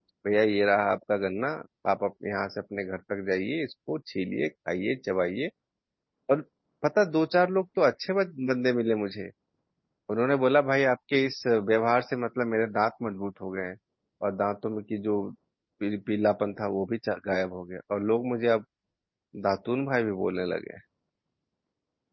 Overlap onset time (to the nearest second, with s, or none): none